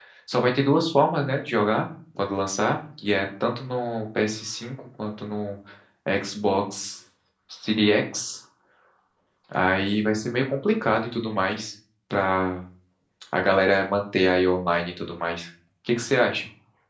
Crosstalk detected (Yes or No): No